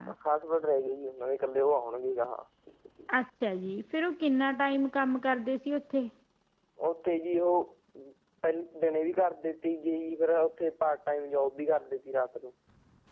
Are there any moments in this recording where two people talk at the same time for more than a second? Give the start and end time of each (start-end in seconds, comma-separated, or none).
none